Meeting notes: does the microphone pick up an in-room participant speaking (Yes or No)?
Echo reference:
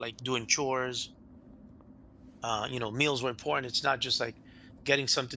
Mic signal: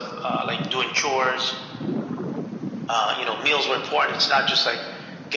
No